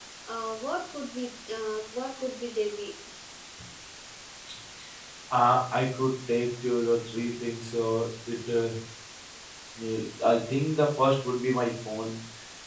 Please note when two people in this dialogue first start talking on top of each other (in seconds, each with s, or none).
none